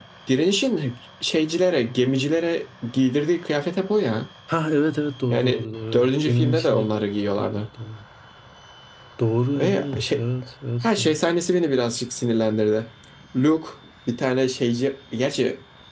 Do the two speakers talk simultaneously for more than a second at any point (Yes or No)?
Yes